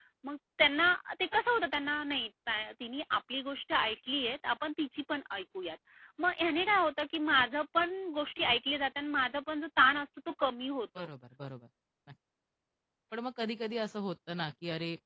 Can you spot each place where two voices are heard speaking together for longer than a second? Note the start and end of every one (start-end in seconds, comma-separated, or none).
none